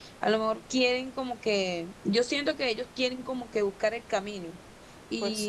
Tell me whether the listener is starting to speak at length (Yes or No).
No